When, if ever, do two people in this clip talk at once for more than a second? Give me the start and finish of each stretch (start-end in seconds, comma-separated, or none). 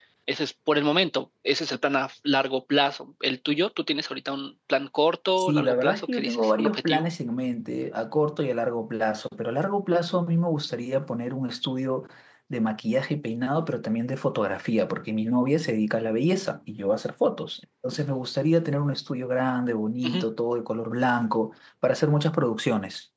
5.4-7.1